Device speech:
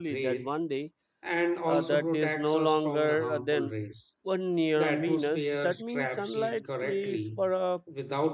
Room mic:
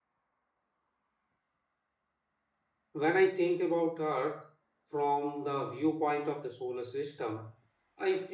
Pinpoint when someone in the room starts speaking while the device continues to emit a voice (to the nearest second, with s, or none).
3 s